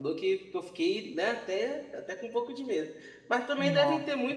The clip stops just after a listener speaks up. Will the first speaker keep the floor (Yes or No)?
Yes